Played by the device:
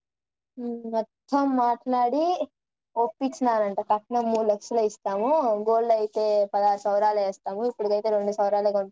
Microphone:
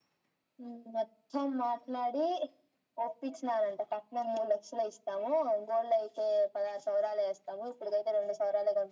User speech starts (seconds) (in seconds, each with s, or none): none